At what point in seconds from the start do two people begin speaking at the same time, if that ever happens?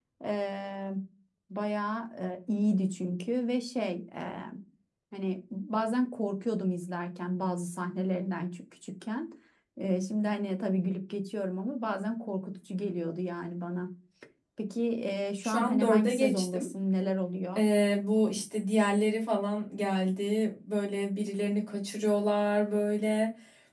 15 s

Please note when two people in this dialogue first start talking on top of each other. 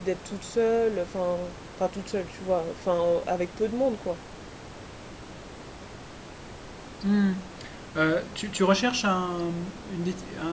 none

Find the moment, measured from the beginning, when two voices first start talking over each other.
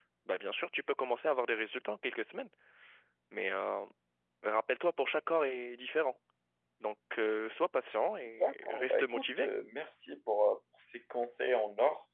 8 s

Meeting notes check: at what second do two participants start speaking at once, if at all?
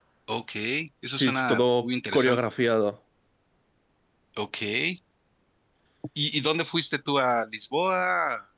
1 s

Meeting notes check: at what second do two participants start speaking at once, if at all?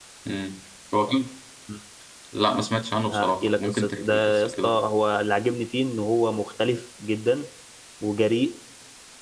3 s

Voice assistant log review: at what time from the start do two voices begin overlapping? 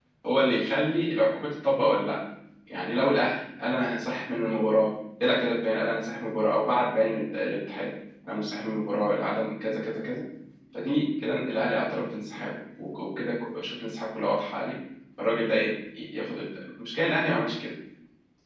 none

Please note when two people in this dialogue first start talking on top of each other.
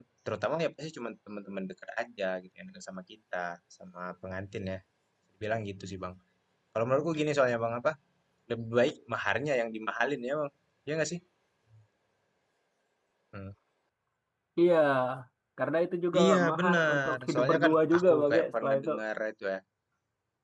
16 s

